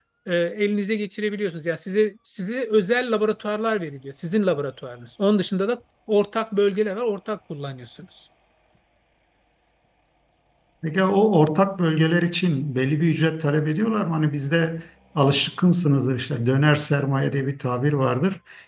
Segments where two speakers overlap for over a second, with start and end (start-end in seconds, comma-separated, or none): none